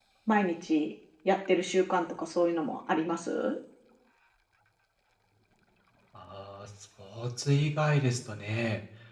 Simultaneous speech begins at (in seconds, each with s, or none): none